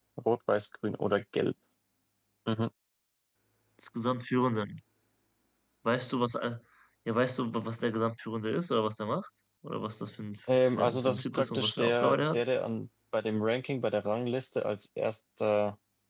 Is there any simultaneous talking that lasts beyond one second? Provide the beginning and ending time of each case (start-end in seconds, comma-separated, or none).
10.8-12.5